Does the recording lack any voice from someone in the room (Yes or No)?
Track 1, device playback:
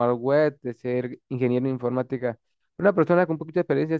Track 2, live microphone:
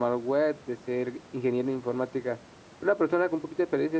Yes